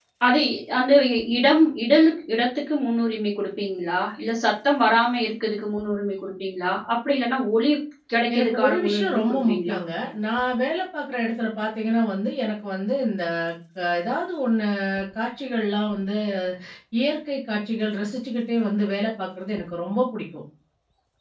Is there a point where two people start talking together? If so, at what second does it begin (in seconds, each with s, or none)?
8.3 s